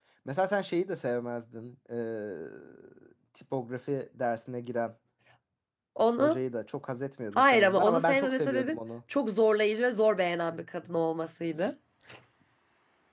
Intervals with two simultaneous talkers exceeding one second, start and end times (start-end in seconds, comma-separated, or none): 7.4-8.8